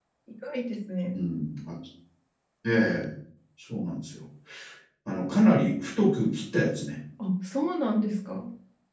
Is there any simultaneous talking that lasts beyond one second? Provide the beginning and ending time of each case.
none

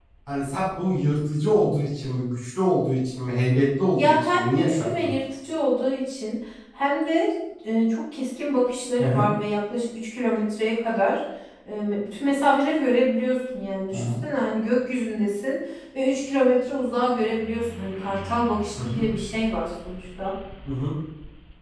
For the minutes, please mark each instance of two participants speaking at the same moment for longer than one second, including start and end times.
3.9-5.2

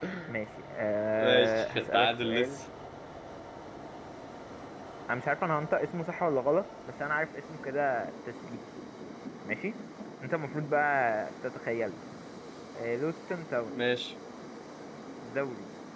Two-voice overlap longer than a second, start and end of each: 1.2-2.5

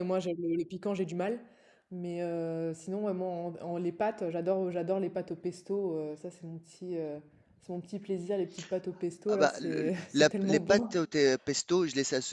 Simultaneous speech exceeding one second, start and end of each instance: 9.3-10.8

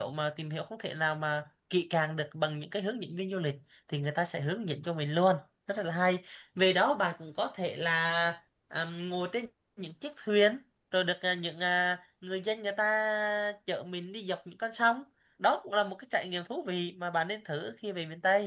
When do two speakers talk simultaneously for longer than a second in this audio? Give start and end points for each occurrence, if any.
none

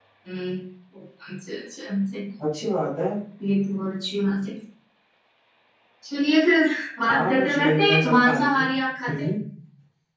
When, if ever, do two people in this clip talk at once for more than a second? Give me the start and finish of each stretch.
7.1-8.7

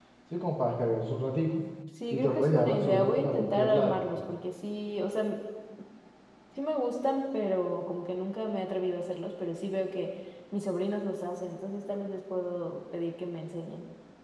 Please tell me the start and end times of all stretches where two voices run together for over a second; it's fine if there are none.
2.1-4.0

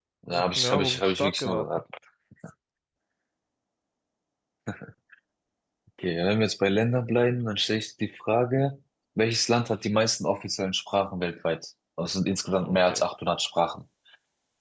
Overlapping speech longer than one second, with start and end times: 0.6-1.8

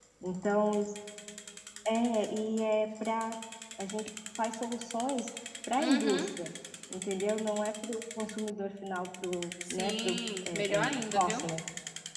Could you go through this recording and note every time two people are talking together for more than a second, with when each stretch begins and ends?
9.7-11.4

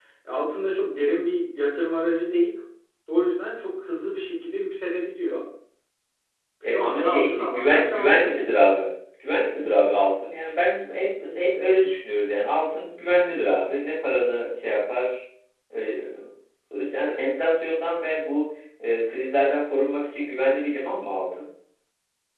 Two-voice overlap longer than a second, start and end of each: 6.6-8.4

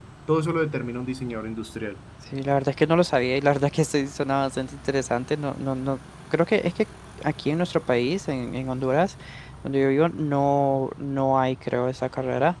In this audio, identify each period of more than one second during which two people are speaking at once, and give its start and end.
none

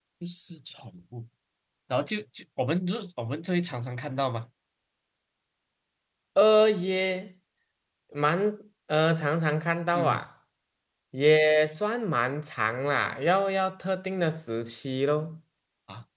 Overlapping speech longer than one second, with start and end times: none

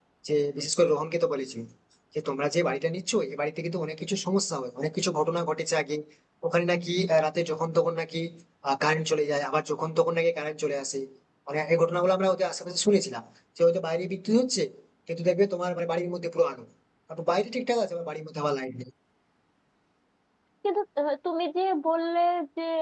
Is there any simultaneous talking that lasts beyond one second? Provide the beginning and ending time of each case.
none

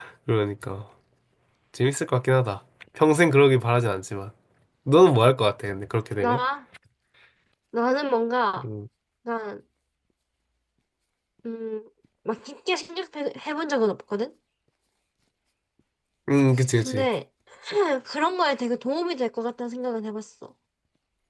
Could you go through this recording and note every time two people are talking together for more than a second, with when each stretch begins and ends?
none

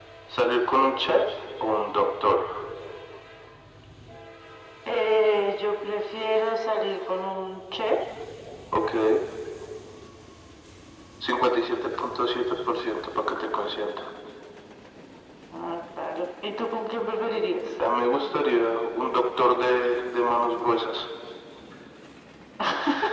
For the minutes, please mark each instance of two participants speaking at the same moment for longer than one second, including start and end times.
none

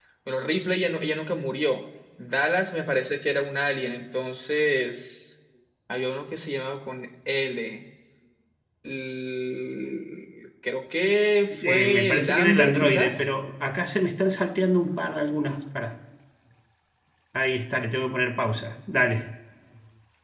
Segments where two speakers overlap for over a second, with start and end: 11.1-13.2

